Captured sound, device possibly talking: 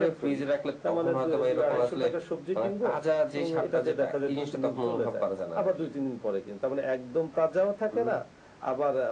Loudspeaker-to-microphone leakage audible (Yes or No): Yes